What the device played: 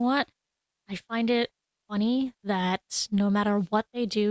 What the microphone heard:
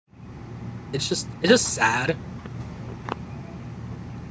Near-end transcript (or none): it's just it's just sad.